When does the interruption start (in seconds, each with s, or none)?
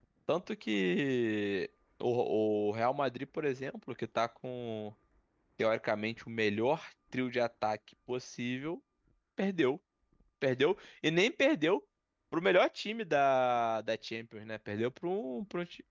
none